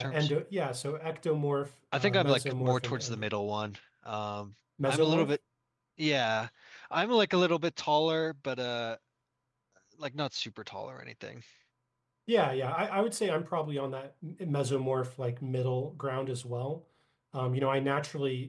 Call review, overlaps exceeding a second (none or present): present